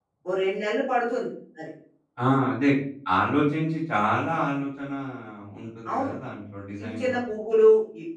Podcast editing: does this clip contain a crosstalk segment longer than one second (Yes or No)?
No